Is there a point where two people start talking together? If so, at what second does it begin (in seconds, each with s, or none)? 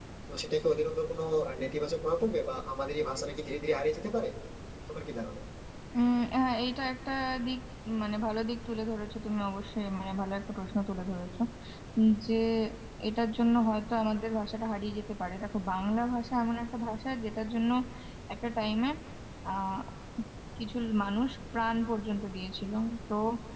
none